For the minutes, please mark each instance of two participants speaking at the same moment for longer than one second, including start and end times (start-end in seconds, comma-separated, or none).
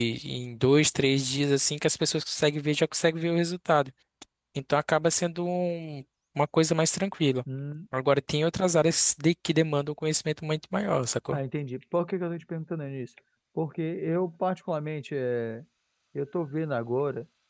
none